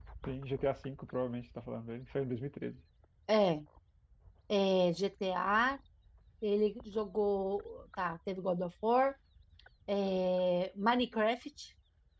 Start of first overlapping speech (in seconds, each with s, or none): none